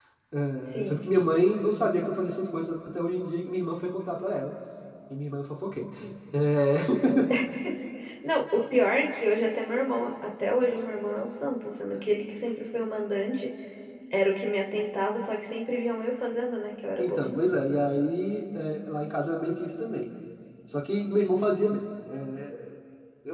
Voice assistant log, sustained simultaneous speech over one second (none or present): none